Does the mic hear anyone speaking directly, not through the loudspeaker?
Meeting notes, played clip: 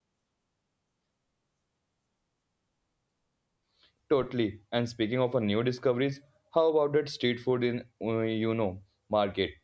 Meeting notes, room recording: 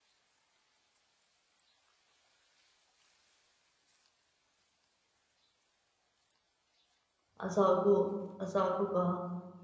Yes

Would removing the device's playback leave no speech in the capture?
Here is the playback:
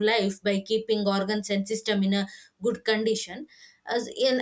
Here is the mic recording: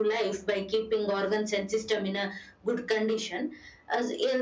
Yes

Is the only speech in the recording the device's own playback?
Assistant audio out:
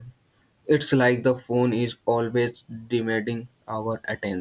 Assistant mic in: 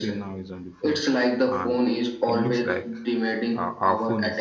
No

